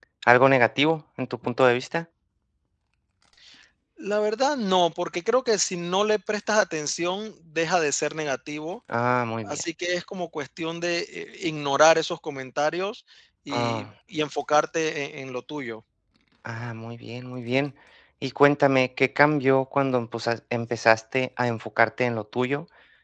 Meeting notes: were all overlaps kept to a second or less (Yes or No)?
Yes